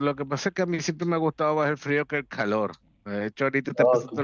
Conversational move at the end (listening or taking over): listening